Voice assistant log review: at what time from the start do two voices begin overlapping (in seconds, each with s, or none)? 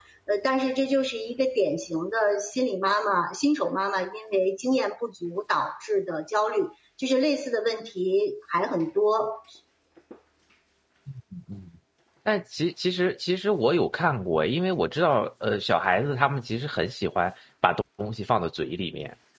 none